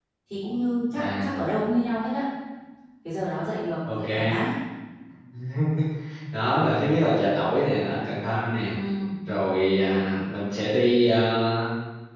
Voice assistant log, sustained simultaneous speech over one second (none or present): none